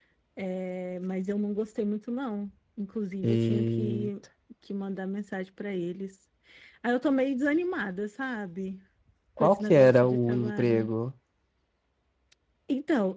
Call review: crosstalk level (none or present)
present